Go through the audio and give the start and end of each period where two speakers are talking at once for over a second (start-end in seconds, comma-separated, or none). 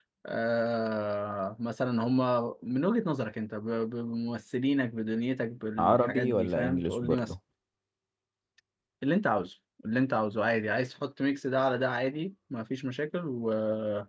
5.8-7.3